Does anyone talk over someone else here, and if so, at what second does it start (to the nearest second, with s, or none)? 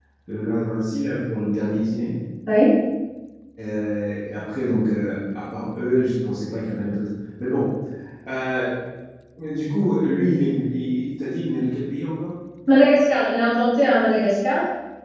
none